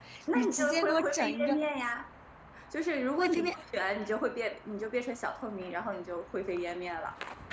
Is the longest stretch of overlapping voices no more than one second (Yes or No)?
No